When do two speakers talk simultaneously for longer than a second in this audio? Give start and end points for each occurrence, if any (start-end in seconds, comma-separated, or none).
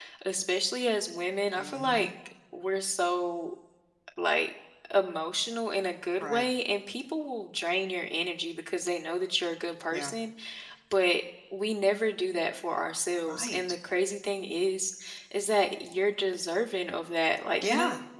none